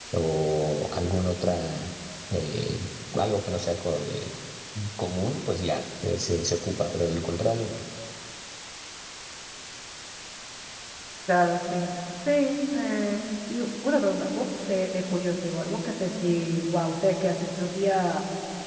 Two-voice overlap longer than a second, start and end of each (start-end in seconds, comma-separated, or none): none